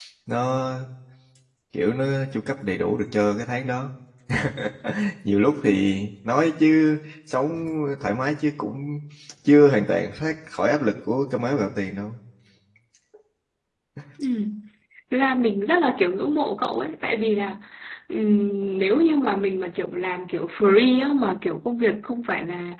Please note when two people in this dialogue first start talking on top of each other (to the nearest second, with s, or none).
none